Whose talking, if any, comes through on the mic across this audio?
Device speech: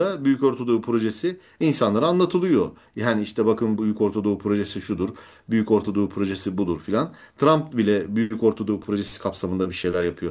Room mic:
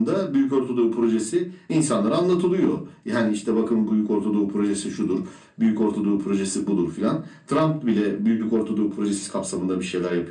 echo only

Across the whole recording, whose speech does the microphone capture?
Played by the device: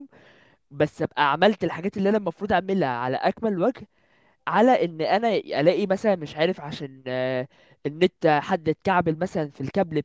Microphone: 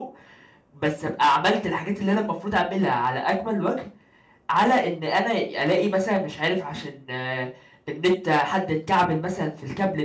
echo only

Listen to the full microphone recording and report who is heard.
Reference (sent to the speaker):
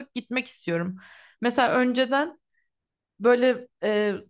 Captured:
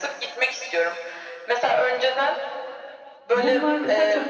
both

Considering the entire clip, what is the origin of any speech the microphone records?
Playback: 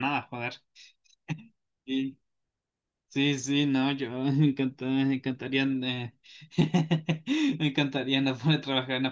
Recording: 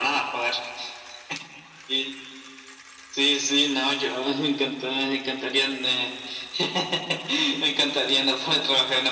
echo only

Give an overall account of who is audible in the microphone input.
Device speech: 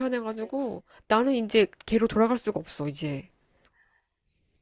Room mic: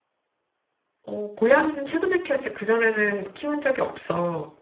user only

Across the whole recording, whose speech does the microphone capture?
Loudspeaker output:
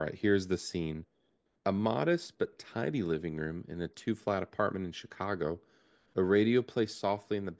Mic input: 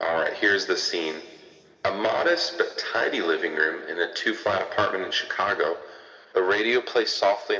echo only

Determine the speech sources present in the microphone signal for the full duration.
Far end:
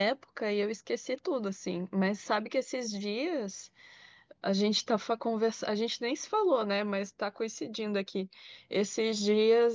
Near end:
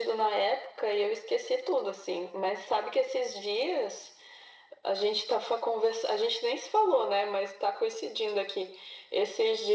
echo only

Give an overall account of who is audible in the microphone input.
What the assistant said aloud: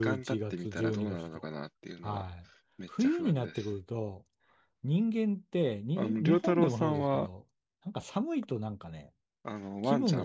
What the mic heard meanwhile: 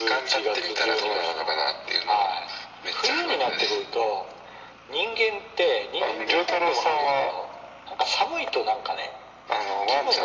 echo only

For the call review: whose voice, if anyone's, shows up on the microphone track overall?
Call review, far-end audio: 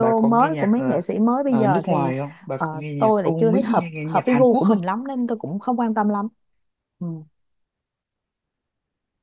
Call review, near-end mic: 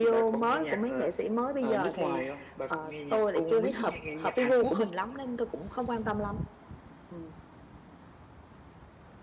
echo only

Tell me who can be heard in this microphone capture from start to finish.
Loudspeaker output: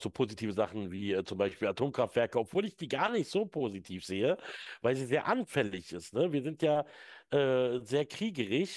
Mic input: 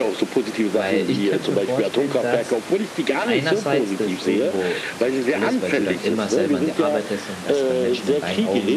both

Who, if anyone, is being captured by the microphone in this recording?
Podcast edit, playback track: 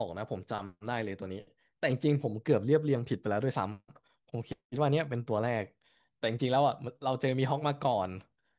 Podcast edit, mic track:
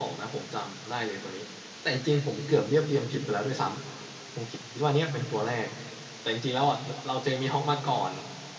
echo only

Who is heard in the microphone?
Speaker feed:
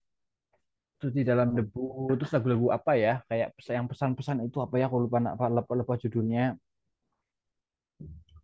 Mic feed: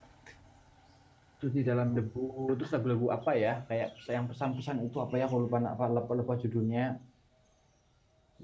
echo only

